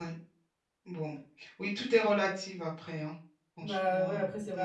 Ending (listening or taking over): taking over